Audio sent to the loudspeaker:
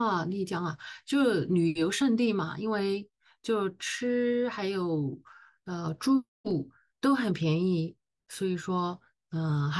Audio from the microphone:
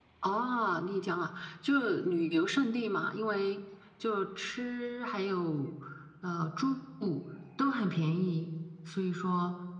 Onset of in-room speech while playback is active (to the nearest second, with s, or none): none